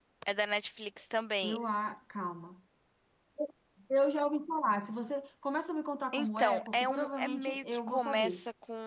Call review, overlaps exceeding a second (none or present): present